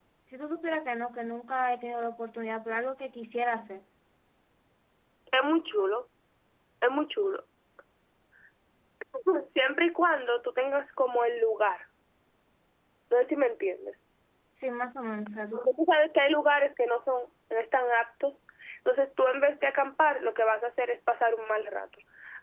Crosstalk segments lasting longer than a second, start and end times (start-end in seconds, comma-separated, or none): none